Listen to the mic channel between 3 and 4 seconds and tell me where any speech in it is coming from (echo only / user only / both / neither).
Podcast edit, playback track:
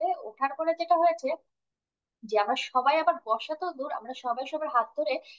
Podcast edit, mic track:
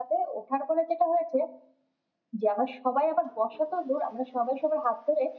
echo only